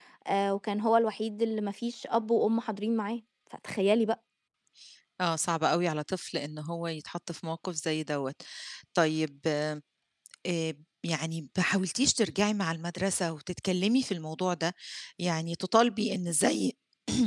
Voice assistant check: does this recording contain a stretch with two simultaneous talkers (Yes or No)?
No